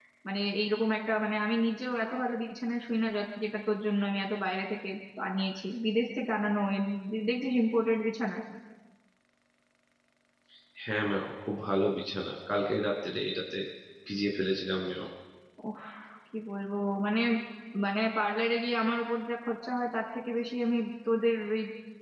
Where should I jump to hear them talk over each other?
none

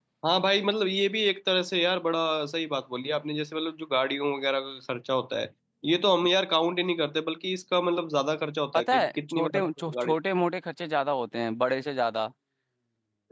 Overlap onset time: 9 s

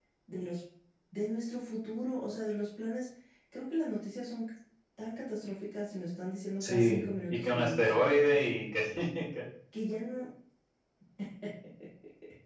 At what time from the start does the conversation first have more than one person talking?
7 s

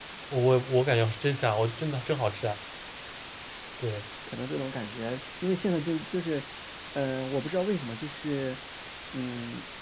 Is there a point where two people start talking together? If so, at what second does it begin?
none

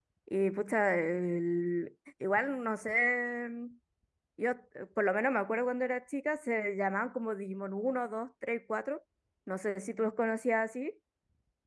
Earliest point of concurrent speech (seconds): none

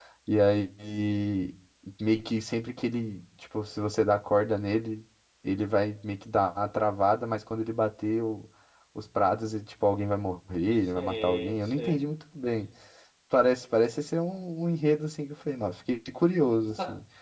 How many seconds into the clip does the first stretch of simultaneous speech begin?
11 s

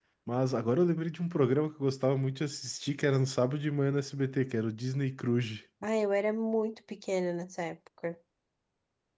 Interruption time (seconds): none

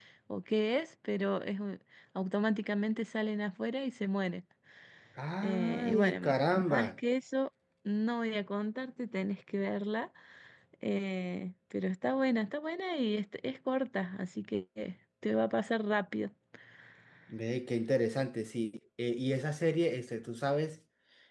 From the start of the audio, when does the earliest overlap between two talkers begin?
5 s

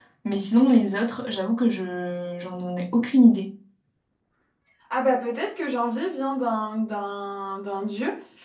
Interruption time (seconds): none

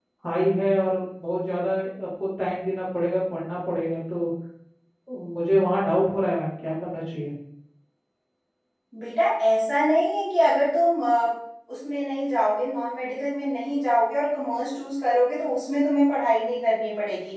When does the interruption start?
none

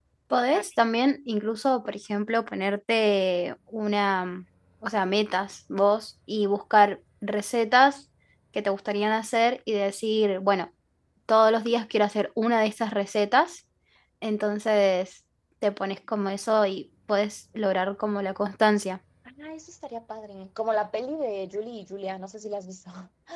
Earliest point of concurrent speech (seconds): none

